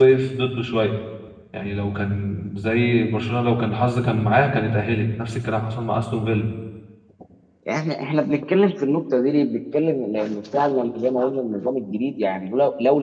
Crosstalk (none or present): none